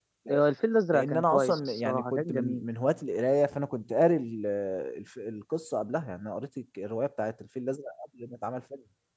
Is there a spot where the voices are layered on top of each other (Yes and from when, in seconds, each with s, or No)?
Yes, from 0.9 s